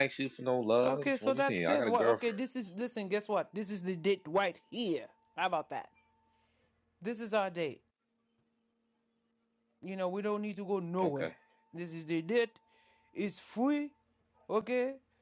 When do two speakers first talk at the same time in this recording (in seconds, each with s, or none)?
0.8 s